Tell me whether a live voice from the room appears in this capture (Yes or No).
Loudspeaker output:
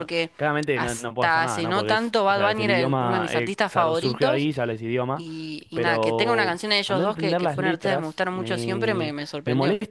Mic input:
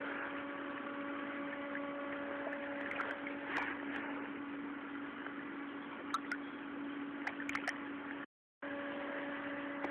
No